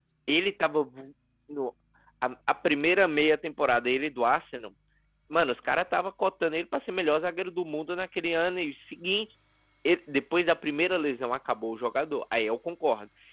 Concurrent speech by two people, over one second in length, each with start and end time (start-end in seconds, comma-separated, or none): none